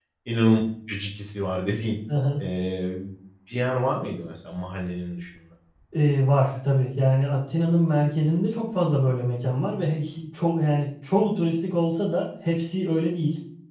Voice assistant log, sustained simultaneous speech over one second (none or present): none